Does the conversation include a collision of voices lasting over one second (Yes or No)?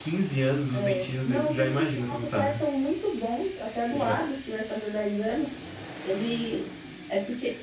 Yes